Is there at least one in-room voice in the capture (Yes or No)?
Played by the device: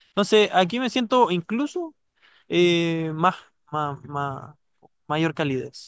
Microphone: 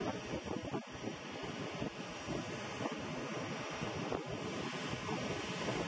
No